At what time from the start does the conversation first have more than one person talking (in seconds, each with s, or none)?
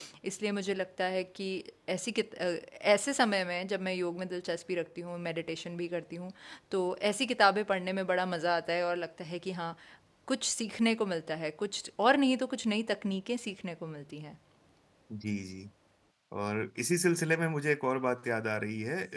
none